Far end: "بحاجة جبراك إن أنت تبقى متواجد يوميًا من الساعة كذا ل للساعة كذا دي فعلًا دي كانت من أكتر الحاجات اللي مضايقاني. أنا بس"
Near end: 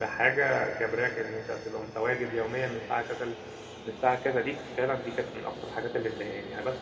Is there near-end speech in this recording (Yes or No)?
No